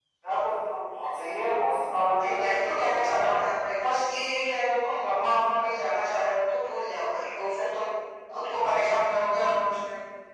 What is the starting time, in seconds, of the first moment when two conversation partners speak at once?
2.2 s

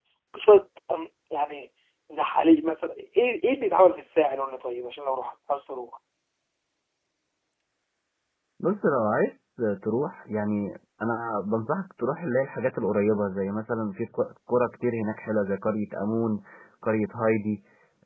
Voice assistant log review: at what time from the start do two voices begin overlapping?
none

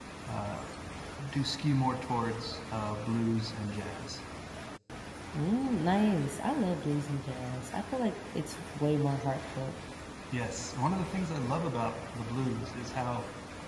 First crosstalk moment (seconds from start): none

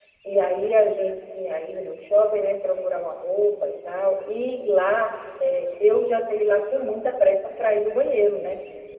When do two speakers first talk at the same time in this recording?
none

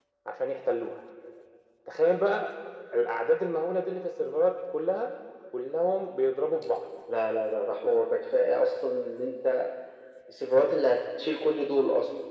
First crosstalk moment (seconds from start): none

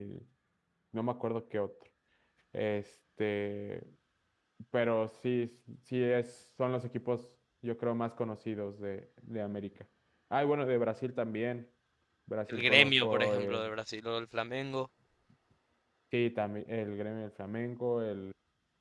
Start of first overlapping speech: 12.5 s

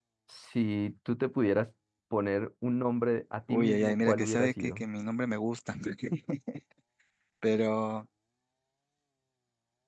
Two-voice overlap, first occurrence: 3.5 s

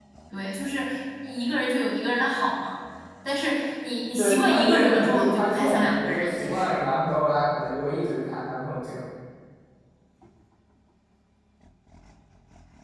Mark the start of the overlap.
4.2 s

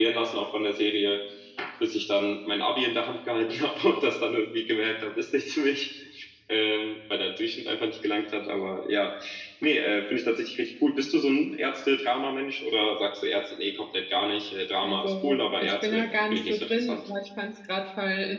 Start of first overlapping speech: 14.8 s

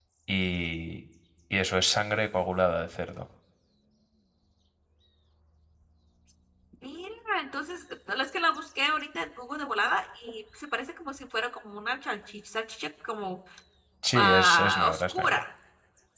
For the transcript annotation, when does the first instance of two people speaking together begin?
14.1 s

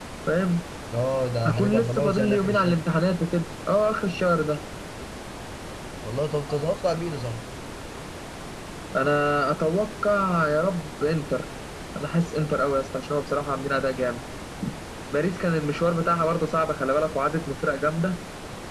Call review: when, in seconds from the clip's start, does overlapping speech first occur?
1.4 s

